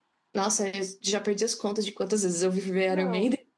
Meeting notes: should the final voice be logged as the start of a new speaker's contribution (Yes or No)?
Yes